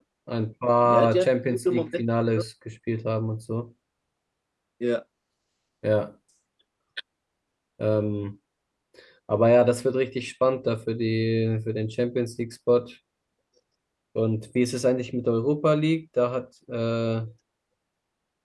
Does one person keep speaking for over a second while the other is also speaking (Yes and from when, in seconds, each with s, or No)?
Yes, from 0.8 s